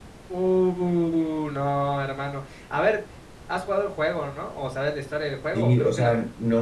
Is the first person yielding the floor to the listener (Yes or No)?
Yes